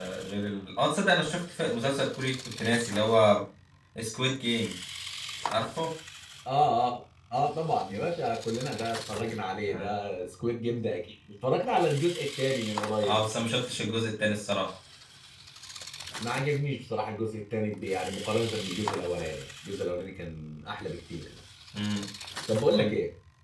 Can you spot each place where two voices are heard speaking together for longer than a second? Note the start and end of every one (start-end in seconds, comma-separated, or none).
none